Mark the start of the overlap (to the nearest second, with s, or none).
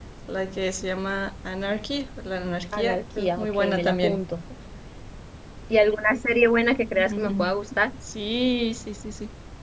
3 s